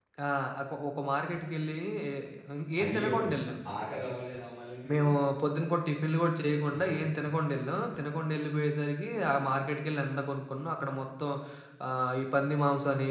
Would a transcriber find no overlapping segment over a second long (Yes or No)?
Yes